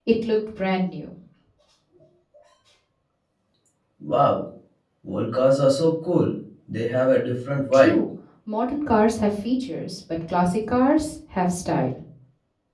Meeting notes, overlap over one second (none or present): none